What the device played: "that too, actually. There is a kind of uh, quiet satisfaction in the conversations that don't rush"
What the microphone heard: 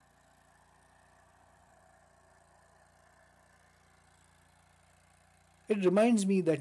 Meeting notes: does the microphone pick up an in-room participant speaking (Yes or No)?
Yes